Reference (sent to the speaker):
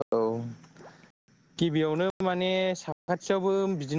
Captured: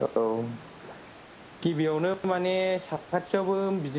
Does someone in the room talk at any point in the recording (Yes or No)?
No